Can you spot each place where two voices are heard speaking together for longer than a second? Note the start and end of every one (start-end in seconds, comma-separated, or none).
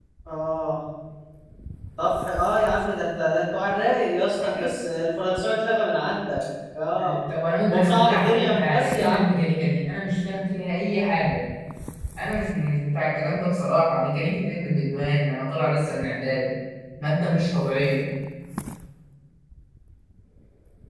7.7-9.3